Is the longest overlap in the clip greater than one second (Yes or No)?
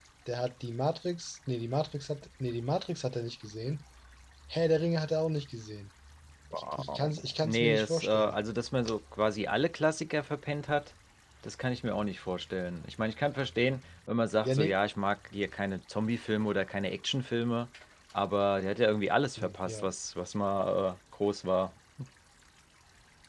Yes